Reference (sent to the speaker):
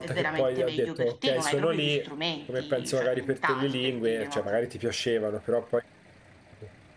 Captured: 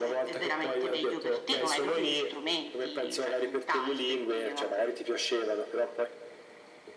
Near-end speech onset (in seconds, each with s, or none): none